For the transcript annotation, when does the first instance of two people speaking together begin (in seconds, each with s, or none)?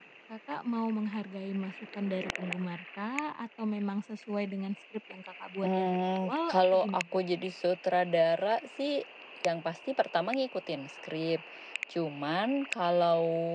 5.6 s